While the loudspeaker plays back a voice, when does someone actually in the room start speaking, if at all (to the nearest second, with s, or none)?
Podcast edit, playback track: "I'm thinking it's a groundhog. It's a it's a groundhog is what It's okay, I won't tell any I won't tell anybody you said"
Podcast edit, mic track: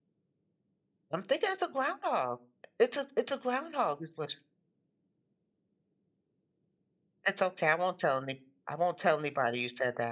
none